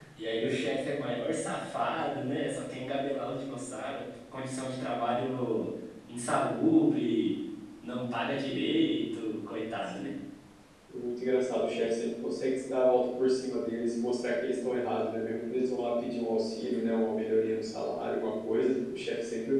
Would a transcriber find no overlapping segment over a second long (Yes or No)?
Yes